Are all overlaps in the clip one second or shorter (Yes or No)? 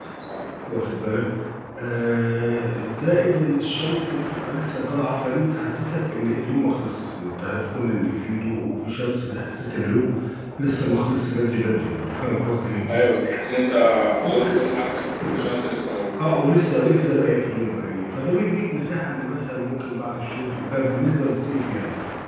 Yes